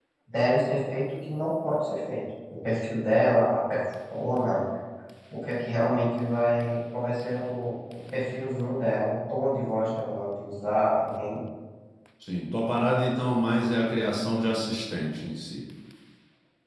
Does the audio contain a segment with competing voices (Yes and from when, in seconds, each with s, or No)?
No